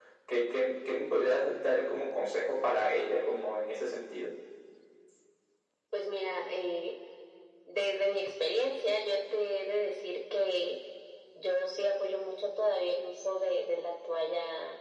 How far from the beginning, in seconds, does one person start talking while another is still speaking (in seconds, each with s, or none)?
none